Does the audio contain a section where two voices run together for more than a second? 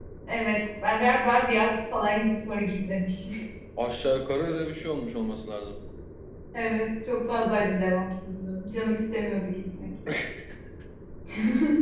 No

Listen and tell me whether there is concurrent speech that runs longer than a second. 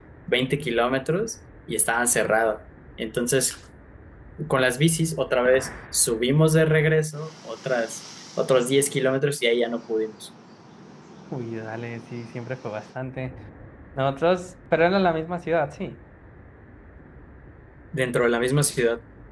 No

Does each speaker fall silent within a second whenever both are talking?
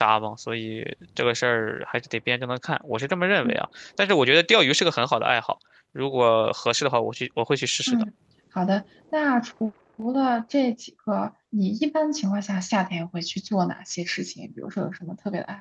Yes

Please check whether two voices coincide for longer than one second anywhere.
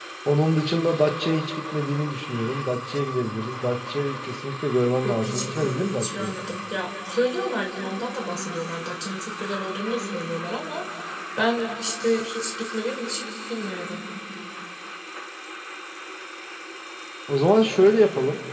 Yes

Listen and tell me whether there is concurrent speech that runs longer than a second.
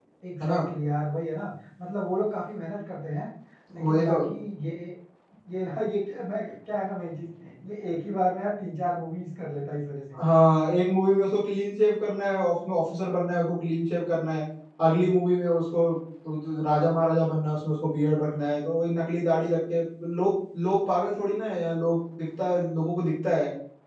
No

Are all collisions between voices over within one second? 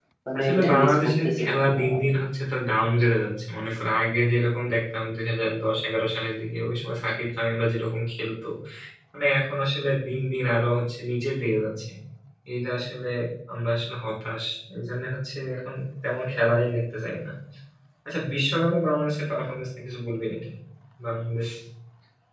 No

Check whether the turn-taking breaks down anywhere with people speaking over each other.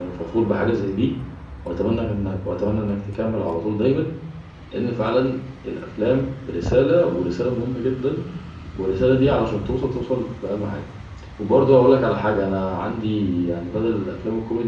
No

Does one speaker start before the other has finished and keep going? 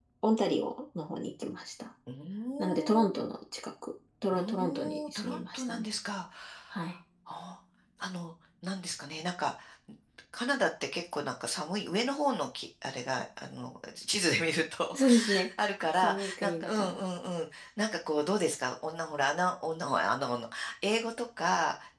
Yes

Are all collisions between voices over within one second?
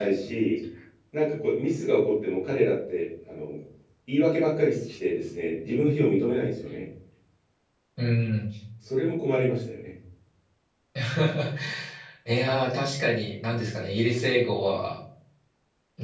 Yes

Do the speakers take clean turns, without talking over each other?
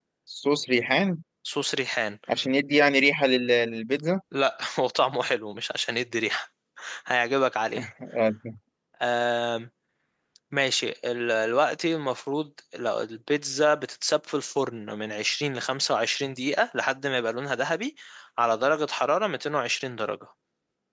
Yes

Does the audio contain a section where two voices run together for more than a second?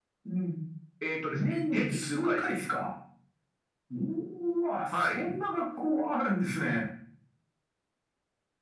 Yes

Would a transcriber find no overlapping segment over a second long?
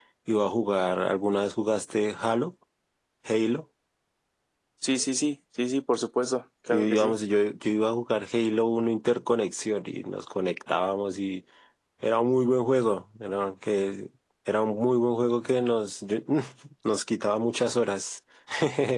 Yes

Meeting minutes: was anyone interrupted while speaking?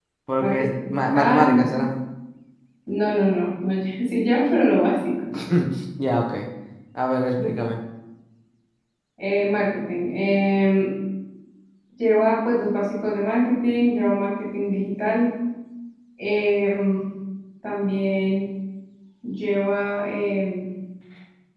Yes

